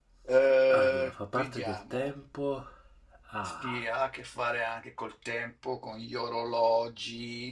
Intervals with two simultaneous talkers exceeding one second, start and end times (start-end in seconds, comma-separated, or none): 0.7-2.1